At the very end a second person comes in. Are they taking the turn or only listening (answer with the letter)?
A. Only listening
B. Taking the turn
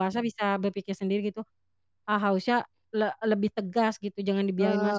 B